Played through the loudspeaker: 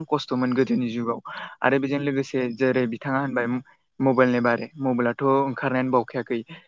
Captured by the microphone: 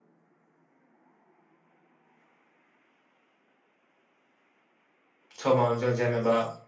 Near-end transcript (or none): समावनो जों जेनेबा